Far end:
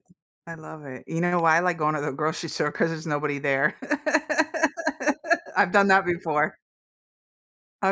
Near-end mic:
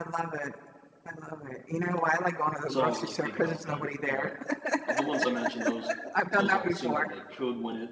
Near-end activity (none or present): present